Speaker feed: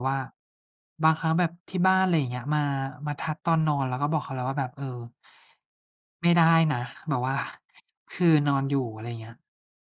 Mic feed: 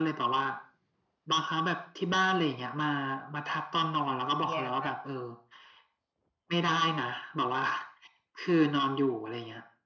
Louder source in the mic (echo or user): echo